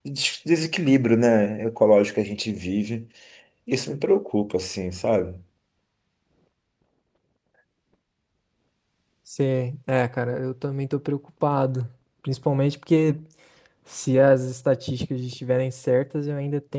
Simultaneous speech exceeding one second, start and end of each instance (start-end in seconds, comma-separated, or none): none